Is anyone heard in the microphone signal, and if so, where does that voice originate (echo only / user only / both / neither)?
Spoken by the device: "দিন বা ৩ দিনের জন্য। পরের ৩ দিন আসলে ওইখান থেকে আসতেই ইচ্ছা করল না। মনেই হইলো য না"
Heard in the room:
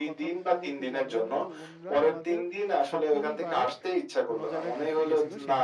both